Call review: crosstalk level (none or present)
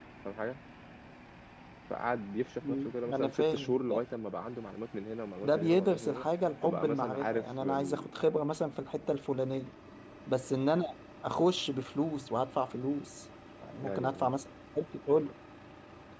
present